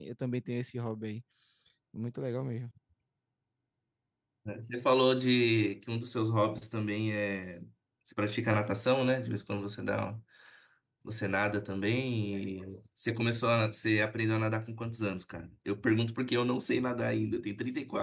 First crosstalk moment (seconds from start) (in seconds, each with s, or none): none